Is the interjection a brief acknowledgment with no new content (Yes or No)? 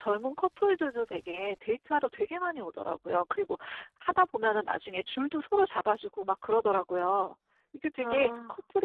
Yes